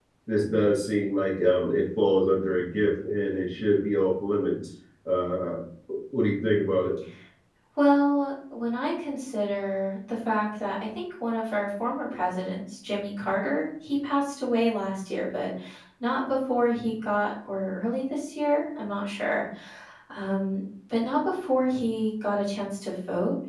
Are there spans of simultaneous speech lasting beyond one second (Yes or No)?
No